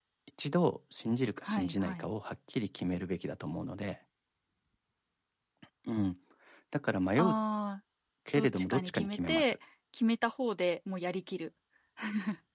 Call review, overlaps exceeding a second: present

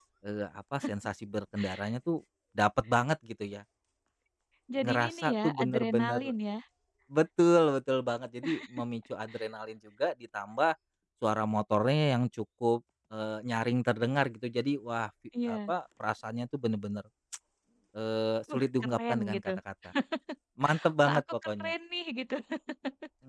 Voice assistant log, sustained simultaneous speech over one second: present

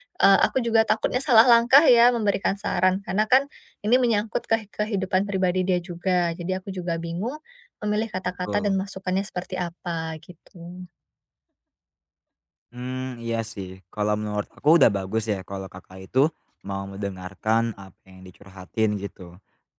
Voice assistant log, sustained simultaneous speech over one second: none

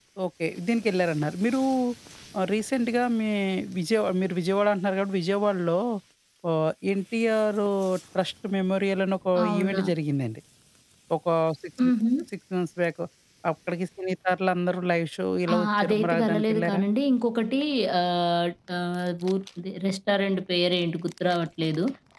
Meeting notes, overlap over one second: present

